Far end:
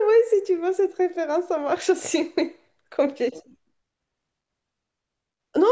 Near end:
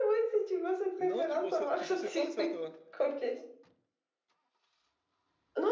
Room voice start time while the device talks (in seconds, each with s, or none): 1.0 s